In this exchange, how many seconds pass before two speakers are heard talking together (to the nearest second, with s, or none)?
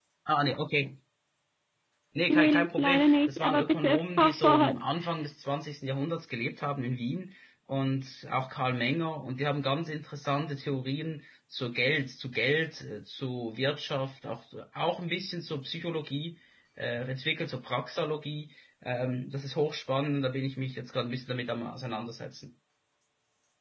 2 s